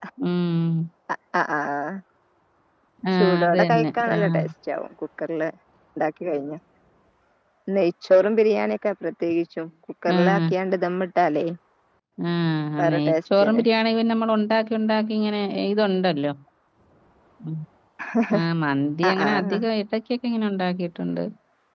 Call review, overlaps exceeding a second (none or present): present